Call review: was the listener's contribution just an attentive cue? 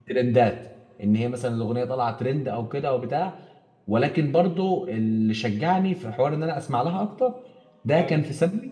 Yes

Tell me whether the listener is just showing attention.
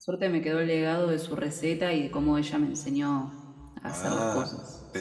No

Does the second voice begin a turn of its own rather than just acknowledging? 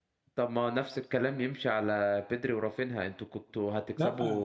No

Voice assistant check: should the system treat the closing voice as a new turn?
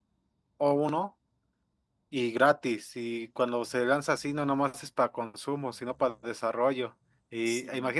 No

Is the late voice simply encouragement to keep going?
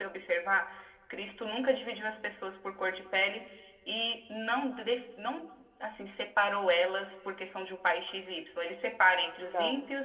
Yes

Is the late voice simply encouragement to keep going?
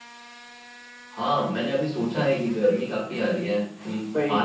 Yes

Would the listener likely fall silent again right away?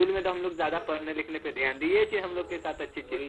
No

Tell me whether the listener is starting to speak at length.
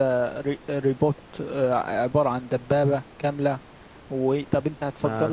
Yes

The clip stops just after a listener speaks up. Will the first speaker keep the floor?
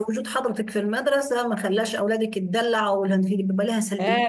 No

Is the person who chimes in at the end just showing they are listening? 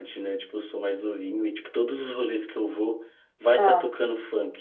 Yes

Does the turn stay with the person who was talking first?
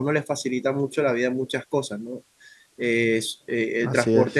Yes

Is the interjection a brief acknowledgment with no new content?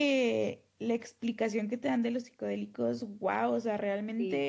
Yes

